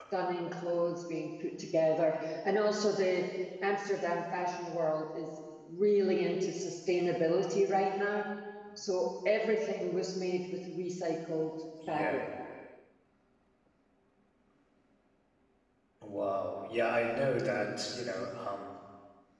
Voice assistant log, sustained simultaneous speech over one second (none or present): none